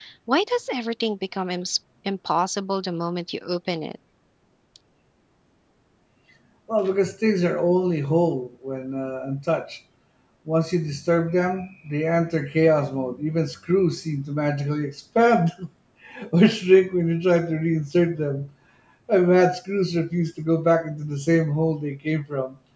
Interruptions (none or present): none